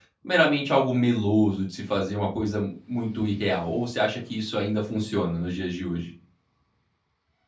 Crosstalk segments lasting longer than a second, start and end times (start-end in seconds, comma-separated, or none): none